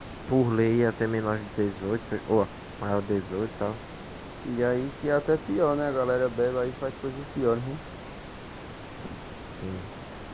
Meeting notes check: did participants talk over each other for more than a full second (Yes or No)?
No